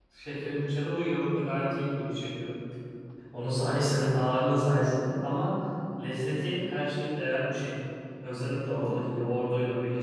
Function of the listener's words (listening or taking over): listening